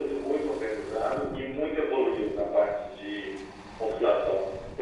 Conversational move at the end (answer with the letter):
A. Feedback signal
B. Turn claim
B